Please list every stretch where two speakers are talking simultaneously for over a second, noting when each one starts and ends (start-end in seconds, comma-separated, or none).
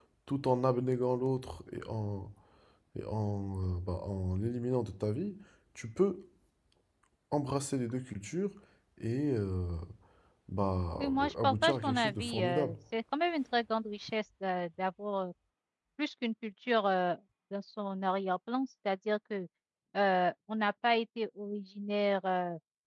11.0-12.7